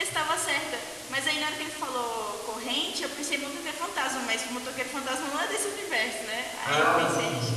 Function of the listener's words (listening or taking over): listening